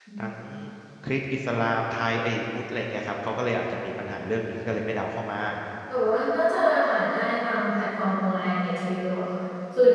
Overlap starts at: none

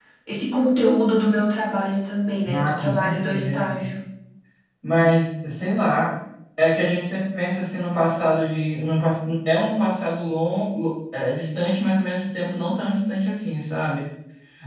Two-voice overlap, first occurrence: 2 s

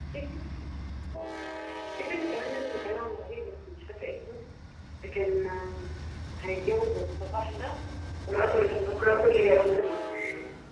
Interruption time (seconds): 8 s

